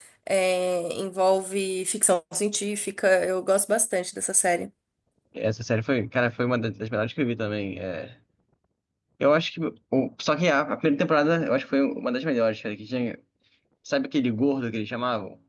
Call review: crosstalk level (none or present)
none